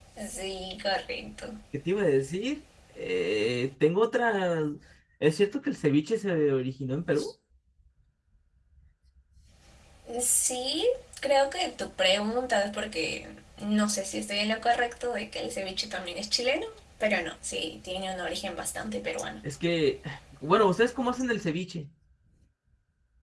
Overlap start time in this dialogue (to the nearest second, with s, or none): none